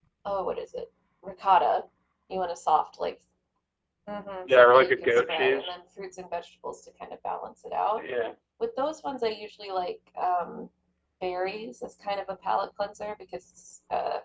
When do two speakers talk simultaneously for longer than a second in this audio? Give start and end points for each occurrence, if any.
4.5-5.7

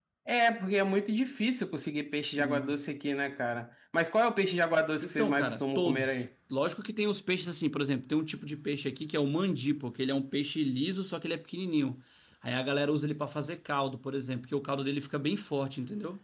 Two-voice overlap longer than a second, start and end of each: 5.0-6.2

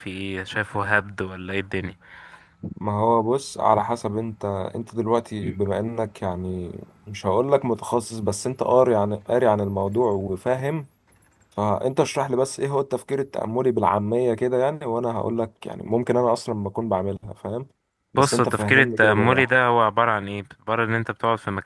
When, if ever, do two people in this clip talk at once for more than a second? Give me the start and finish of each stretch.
18.2-19.5

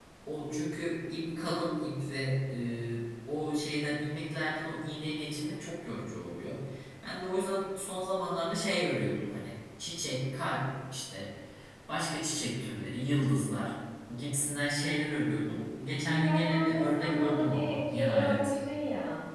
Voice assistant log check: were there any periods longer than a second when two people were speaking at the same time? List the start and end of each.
16.2-18.5

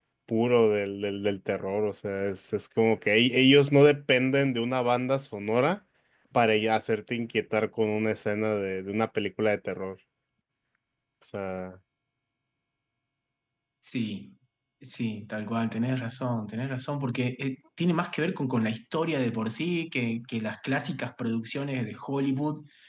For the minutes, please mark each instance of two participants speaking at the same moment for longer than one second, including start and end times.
none

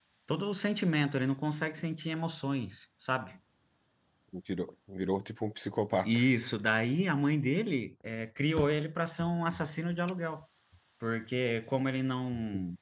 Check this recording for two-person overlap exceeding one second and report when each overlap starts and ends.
none

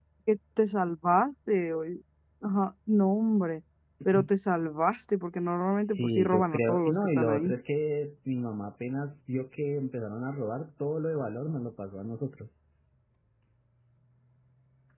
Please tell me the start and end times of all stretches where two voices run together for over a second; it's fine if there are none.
5.8-7.5

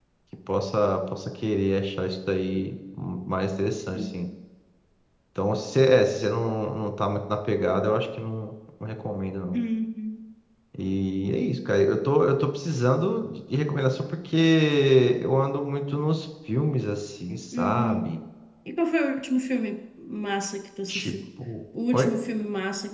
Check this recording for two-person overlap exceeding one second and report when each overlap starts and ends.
none

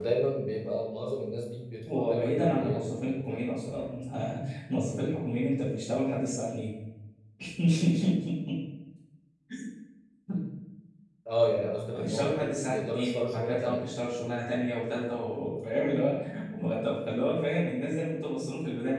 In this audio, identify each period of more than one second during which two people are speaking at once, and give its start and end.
1.9-3.5, 11.9-13.8

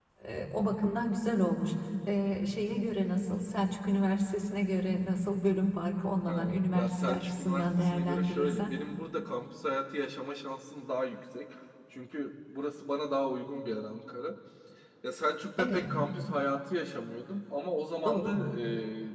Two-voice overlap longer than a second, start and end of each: 6.3-8.7

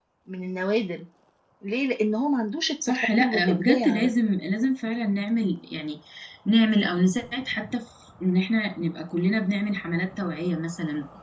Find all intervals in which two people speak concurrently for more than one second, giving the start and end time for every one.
2.9-4.1

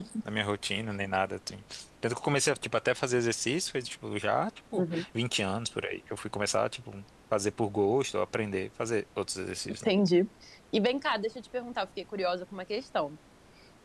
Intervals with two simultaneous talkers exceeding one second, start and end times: none

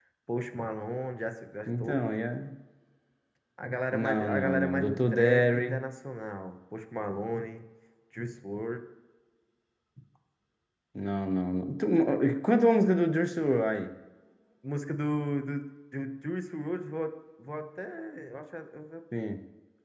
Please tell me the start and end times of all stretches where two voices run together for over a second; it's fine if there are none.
3.9-5.8

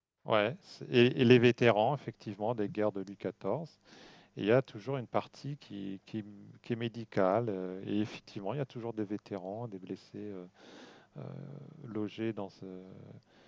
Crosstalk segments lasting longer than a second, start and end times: none

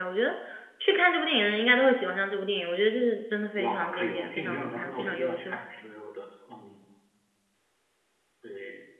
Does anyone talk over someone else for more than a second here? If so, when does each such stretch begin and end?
3.6-5.6

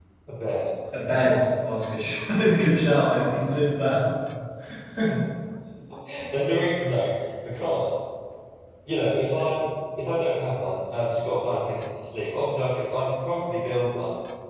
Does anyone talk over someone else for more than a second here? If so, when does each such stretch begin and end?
none

